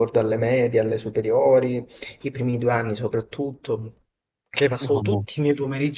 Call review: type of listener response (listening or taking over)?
listening